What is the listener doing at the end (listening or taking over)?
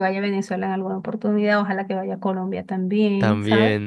listening